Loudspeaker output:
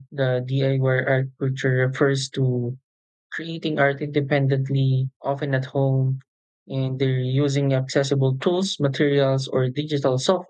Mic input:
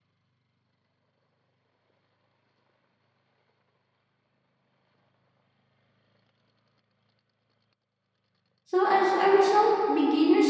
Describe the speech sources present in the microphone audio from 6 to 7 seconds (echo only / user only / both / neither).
neither